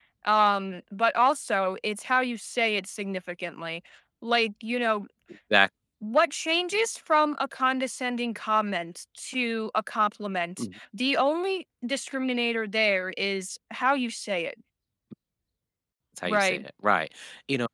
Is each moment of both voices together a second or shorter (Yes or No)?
Yes